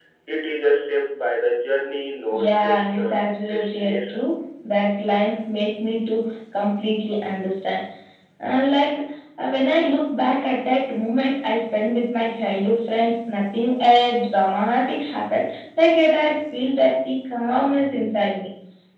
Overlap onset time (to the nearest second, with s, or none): 2 s